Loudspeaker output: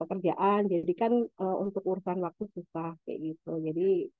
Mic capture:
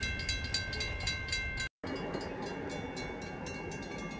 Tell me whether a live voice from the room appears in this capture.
No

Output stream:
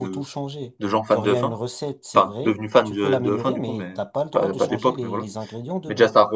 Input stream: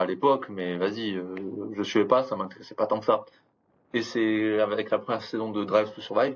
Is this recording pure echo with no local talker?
No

